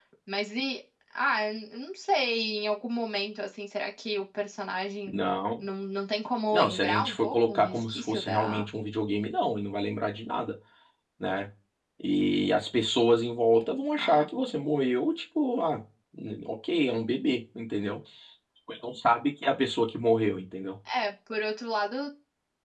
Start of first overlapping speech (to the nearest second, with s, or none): 7 s